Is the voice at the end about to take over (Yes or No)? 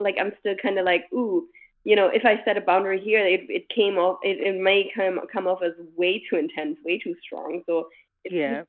No